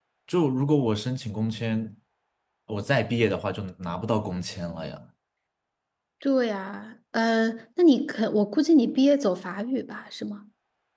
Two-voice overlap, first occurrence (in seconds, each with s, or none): none